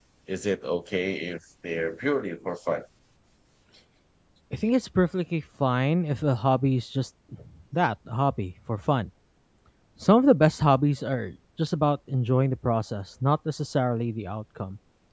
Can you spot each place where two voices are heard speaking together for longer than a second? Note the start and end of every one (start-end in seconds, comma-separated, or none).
none